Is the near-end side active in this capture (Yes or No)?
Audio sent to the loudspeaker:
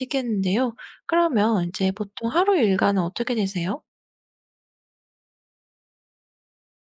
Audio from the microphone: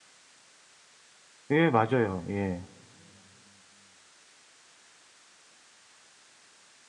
Yes